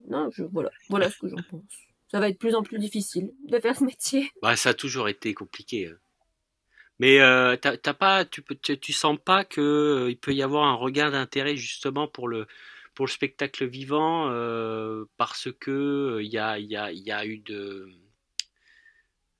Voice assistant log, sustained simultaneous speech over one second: none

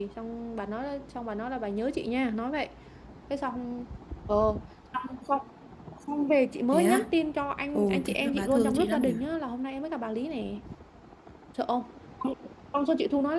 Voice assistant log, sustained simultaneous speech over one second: present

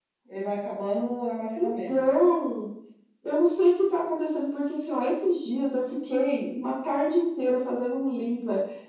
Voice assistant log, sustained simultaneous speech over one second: none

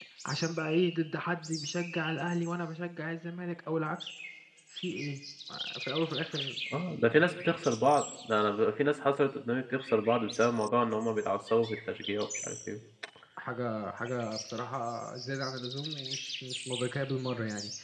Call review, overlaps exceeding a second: none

